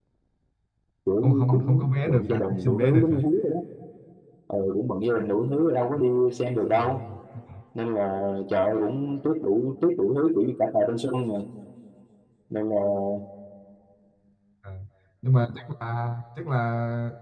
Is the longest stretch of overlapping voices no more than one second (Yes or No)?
No